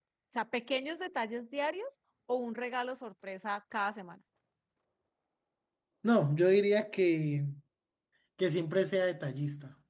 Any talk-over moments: No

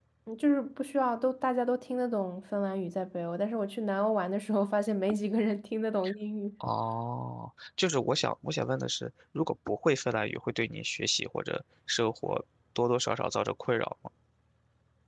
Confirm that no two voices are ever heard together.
Yes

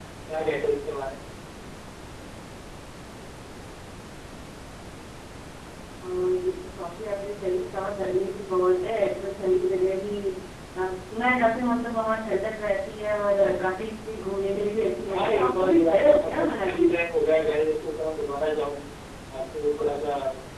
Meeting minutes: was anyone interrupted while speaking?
Yes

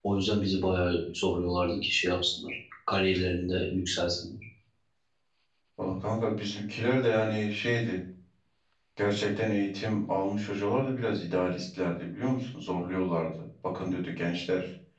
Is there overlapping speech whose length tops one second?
No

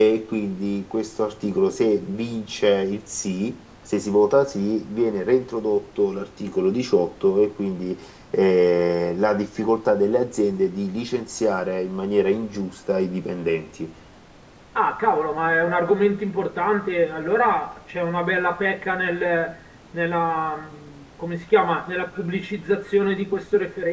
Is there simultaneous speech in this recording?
No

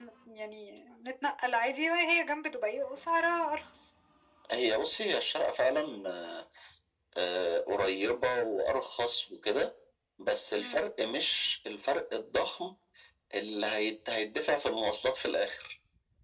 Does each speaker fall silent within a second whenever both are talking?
Yes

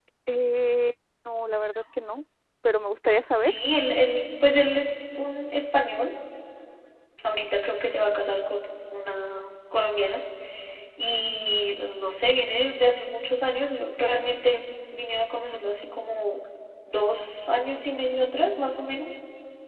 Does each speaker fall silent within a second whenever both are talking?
Yes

